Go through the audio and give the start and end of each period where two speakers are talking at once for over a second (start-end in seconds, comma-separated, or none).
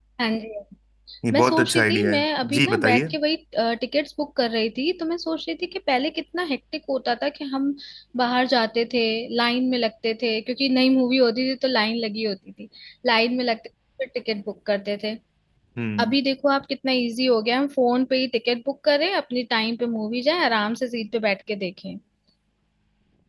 1.3-3.0